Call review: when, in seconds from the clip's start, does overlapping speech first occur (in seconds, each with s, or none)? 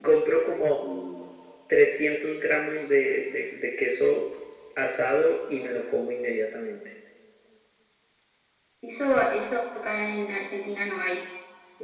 none